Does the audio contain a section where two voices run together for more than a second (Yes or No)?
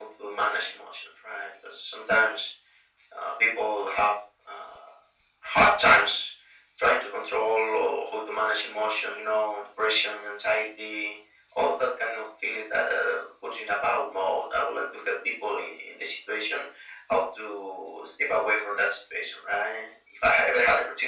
No